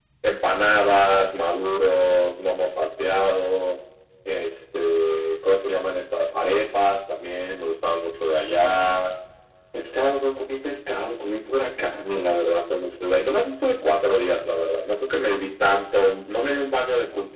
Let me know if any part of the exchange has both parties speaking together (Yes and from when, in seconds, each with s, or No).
No